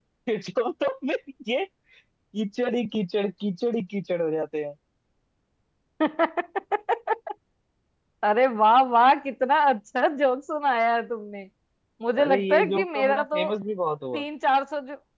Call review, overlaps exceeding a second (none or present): present